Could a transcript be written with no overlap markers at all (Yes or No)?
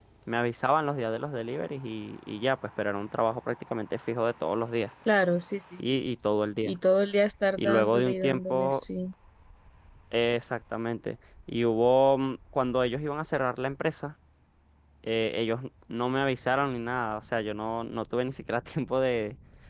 No